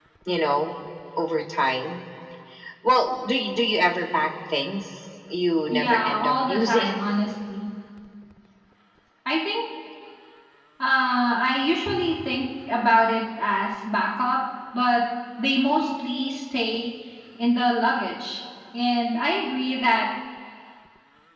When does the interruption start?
5.7 s

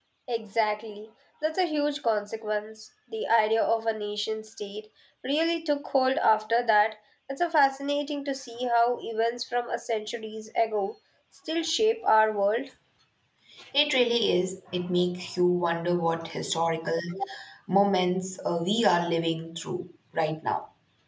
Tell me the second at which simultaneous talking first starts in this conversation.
none

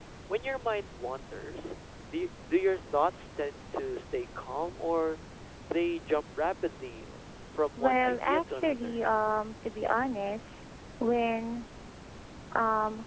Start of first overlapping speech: 7.8 s

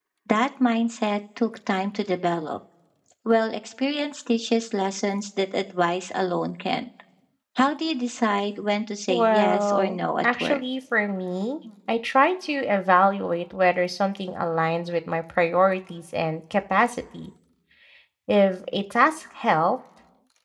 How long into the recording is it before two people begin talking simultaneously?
9.1 s

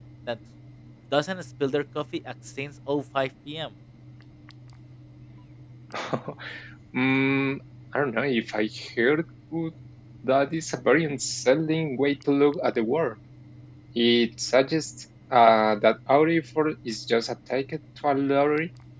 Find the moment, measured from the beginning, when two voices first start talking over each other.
none

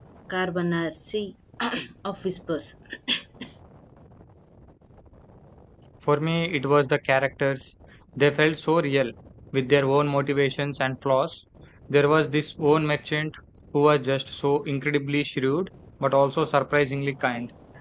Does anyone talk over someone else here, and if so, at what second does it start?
none

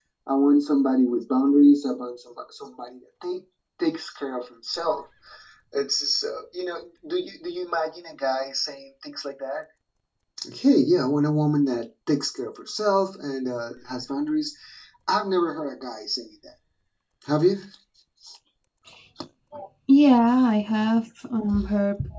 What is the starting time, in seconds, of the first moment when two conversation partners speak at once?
none

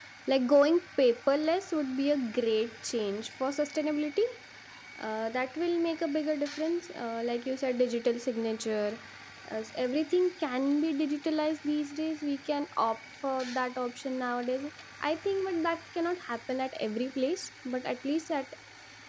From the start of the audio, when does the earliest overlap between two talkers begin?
none

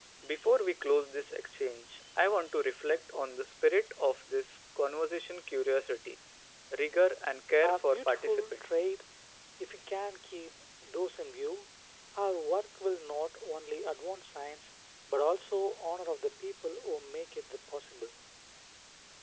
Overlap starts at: 7.6 s

